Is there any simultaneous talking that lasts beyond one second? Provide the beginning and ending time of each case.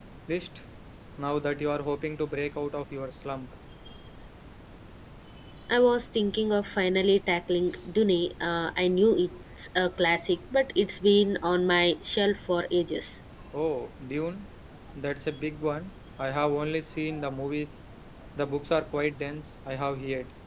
none

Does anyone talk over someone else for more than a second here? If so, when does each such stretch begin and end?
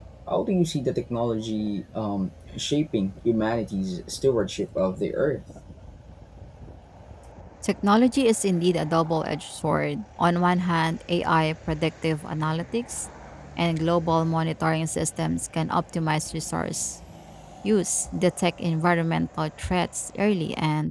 none

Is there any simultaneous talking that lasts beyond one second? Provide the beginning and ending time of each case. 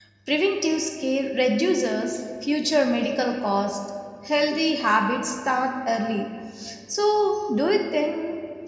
none

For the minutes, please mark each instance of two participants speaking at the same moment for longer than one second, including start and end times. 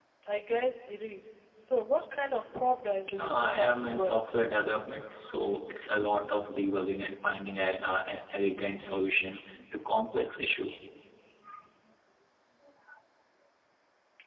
3.2-4.4

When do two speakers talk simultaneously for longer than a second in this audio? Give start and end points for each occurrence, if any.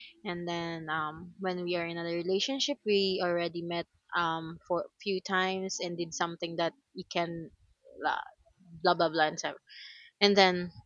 none

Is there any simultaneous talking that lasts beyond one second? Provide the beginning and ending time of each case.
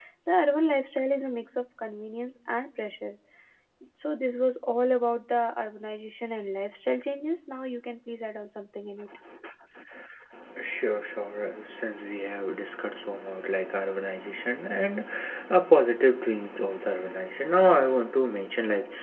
none

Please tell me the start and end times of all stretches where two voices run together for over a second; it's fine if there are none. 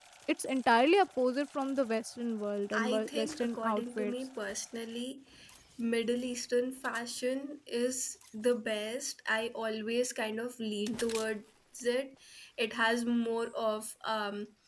2.7-4.1

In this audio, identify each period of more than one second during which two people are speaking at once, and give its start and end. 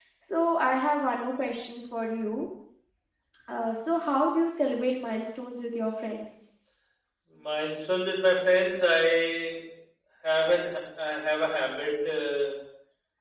none

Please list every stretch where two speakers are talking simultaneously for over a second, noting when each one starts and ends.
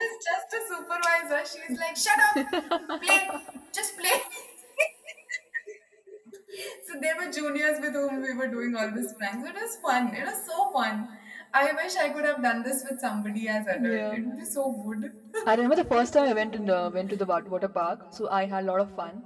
none

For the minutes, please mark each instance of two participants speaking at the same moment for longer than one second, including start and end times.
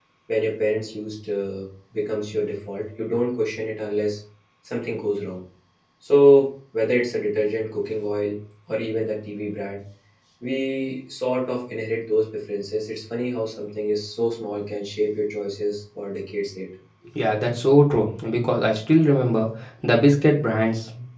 none

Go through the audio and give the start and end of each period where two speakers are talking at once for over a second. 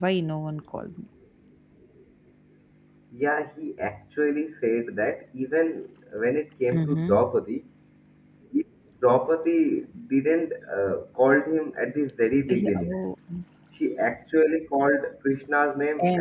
none

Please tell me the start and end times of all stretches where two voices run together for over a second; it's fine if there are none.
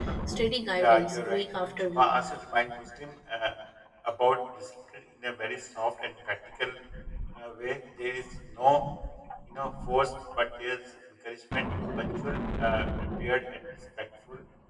0.8-2.1

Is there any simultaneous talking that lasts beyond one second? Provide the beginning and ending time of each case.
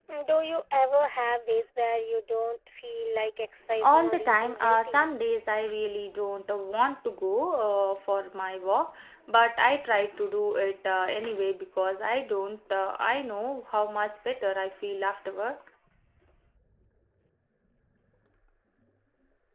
3.8-5.1

